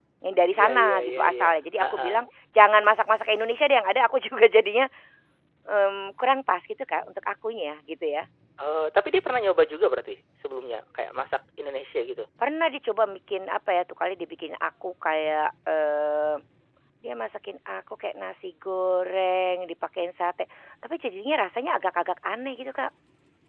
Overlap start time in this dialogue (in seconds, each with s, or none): 0.6 s